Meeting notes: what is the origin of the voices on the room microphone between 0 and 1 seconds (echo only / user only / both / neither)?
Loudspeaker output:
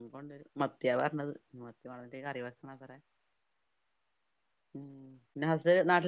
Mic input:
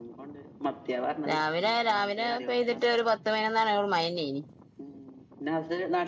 echo only